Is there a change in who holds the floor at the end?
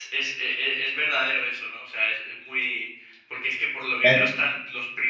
No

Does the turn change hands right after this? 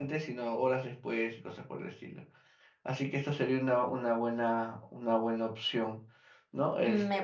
Yes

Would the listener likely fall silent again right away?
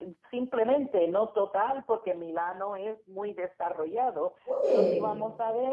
Yes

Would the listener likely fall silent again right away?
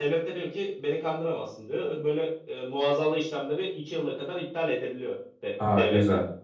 No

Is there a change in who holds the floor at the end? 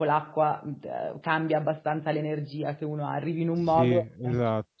Yes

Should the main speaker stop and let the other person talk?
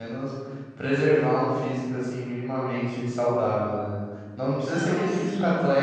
No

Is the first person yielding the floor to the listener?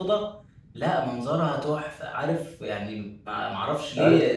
Yes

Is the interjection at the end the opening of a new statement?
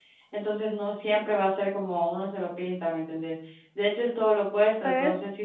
No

